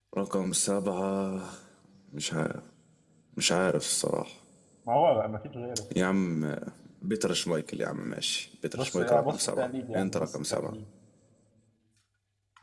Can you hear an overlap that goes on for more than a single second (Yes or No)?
Yes